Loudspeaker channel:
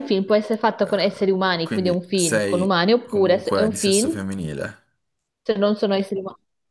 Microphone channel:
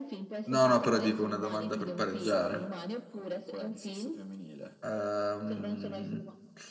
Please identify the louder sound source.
user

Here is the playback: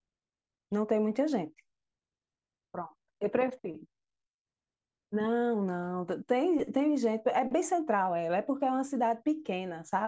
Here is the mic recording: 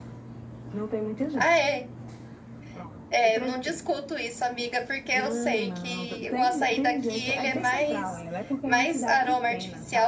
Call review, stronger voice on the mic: user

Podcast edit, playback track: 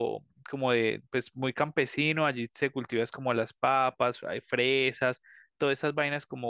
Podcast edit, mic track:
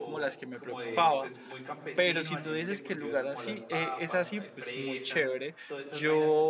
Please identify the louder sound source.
user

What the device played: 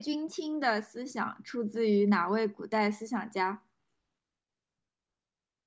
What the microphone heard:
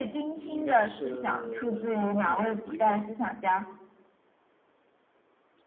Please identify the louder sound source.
echo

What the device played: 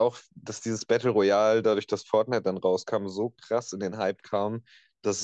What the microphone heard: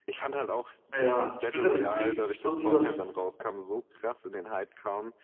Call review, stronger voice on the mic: user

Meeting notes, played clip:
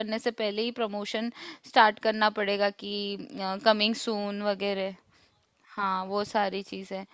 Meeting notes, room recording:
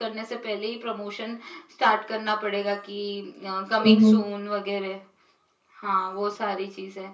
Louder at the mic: user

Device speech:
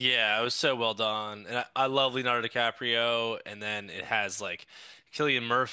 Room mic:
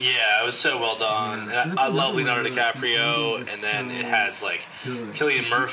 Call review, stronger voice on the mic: echo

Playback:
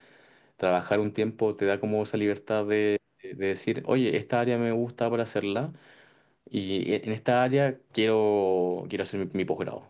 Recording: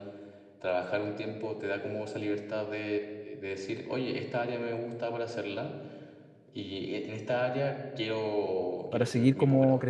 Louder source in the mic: user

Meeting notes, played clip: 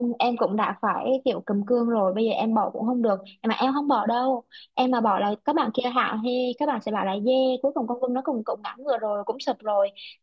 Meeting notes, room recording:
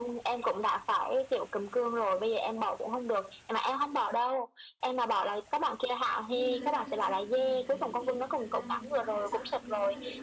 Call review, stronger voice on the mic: echo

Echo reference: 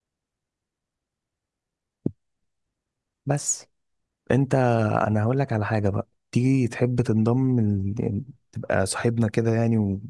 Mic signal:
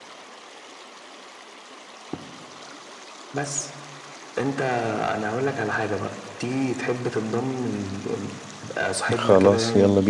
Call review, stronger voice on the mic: user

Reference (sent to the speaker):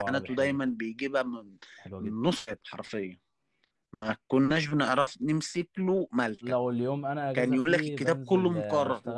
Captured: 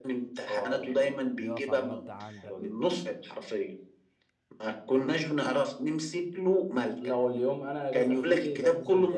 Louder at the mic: echo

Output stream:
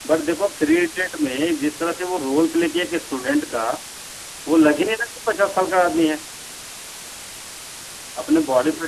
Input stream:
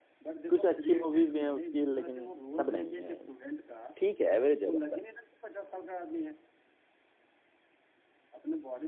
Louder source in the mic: user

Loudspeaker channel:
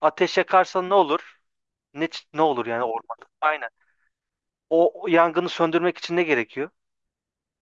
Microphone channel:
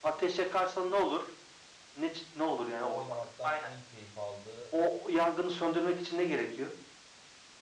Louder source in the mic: echo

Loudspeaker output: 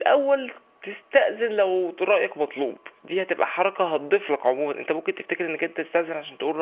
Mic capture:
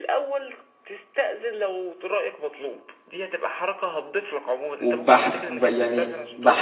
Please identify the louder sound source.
user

